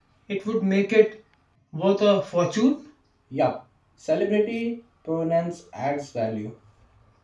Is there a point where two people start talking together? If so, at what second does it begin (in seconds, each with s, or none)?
none